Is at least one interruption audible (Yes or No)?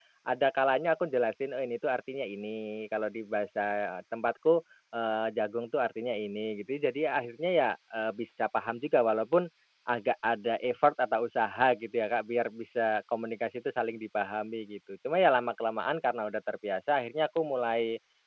No